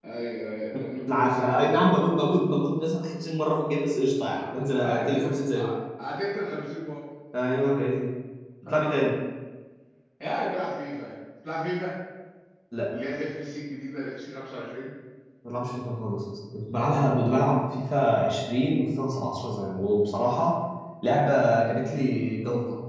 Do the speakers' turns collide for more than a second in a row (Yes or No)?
Yes